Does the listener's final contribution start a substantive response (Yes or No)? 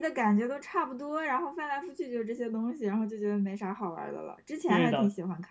Yes